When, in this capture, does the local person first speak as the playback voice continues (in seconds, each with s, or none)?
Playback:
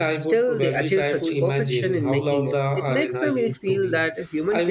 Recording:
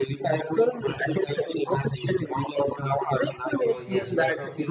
3.6 s